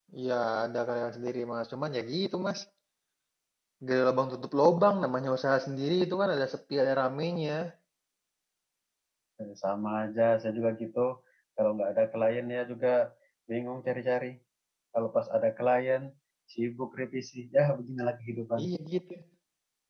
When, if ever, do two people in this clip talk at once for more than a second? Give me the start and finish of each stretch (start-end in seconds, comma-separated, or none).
none